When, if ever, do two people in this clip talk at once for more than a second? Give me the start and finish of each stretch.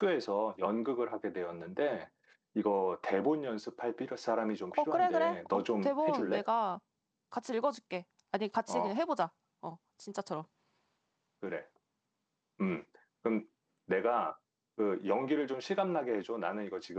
4.7-6.4

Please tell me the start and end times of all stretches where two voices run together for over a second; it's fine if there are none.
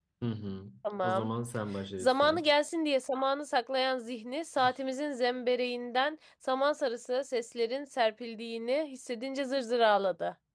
none

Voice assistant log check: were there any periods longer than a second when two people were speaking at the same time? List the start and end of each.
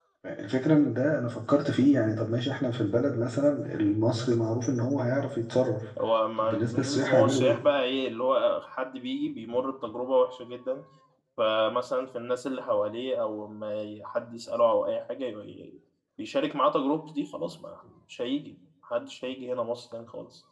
6.4-7.6

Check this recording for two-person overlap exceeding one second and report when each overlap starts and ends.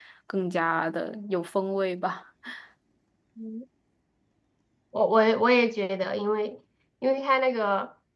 none

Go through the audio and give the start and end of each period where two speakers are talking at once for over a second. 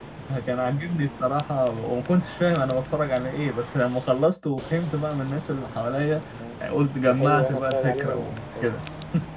7.1-8.7

